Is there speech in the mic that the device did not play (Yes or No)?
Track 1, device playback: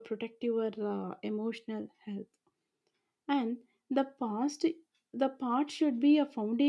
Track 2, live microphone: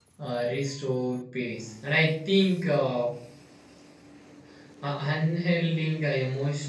Yes